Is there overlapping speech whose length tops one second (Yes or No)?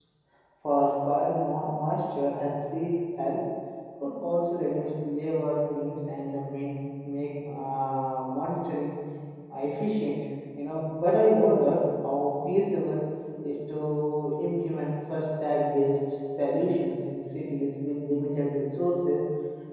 No